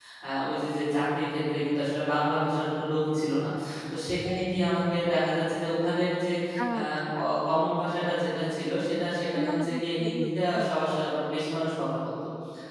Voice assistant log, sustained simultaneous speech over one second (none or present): present